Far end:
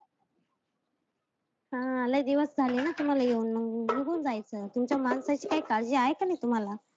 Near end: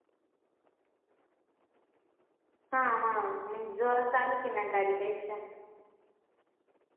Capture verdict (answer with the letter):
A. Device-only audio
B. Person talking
B